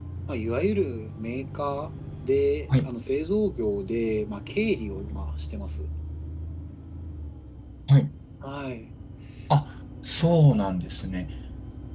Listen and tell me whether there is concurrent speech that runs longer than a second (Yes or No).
No